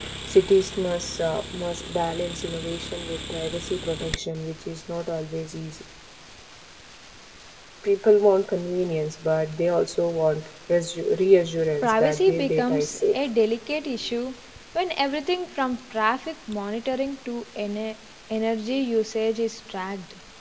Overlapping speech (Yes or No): Yes